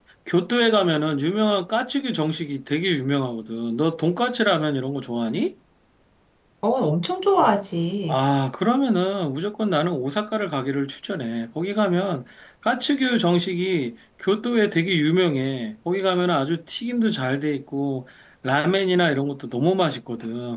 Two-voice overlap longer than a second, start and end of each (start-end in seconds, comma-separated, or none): none